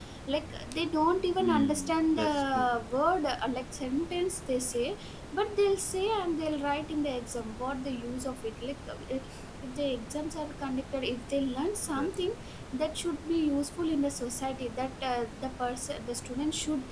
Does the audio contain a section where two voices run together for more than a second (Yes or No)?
Yes